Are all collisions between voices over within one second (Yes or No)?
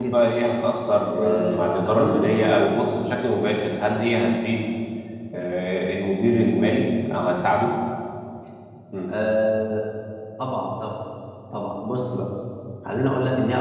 No